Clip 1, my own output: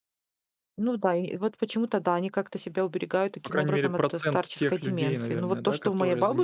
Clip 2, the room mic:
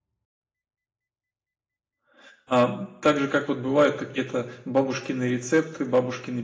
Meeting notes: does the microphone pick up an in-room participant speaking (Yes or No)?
Yes